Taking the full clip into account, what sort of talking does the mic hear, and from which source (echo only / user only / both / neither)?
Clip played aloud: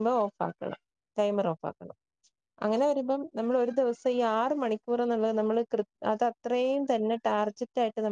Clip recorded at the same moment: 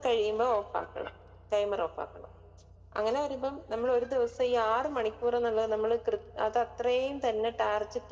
echo only